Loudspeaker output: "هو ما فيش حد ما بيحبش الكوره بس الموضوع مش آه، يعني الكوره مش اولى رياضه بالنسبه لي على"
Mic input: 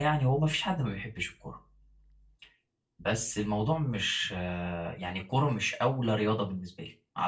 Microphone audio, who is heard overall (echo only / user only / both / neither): echo only